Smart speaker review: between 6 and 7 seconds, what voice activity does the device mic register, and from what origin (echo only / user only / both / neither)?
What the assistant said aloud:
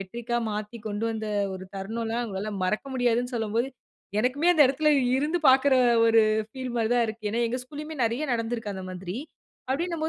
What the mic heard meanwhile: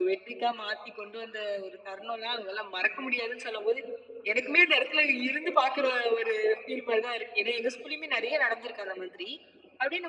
echo only